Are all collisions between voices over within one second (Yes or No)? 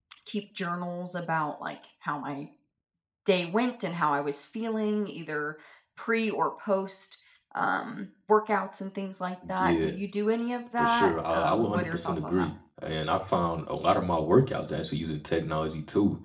No